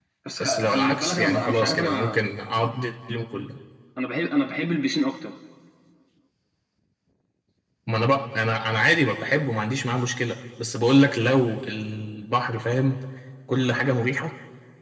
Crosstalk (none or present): present